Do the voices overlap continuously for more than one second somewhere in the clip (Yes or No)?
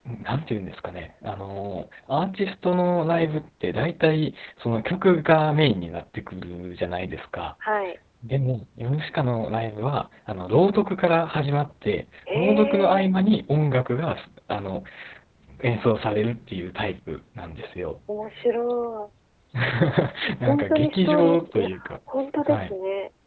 Yes